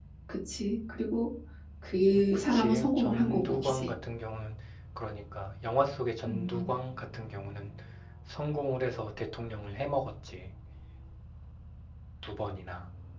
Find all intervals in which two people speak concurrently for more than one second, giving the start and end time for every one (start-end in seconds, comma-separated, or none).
2.2-3.9